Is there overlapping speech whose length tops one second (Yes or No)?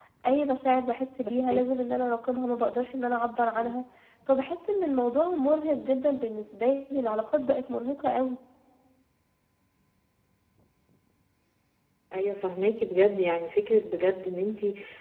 No